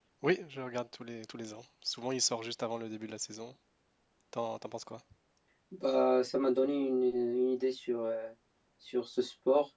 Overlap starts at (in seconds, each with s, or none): none